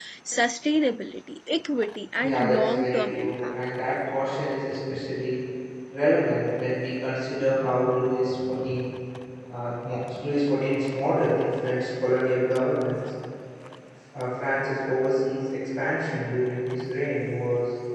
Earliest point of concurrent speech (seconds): 2.2 s

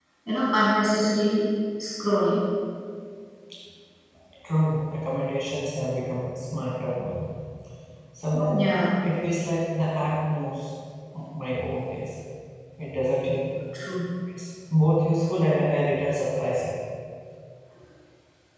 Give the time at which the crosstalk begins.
none

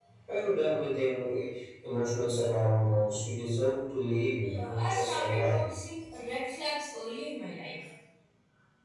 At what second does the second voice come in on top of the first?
4.4 s

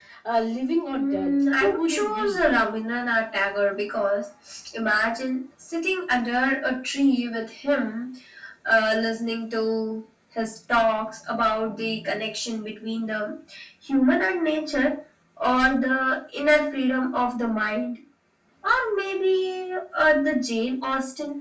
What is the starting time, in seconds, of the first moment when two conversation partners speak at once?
0.9 s

